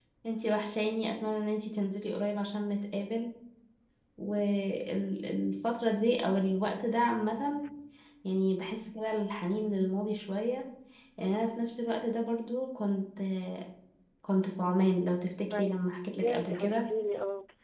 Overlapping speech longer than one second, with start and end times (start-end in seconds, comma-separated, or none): 15.5-16.8